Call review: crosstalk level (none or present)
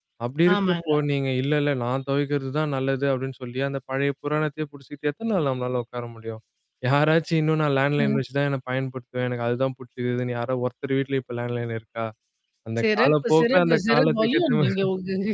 present